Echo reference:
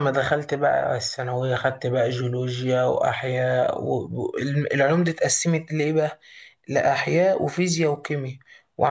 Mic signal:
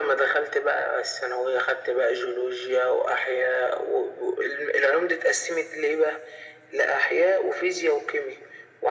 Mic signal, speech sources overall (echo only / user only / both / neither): echo only